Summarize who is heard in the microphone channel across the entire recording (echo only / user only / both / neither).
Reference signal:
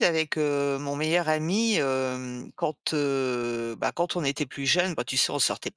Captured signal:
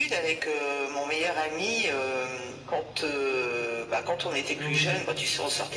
both